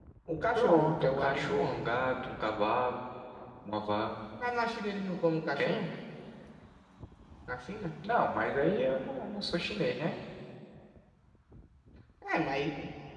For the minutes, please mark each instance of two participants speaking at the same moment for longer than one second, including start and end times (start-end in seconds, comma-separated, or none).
0.6-1.9